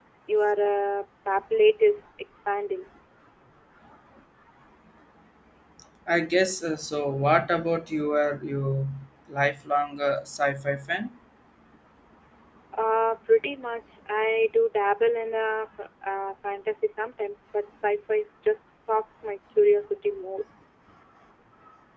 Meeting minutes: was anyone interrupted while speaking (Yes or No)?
No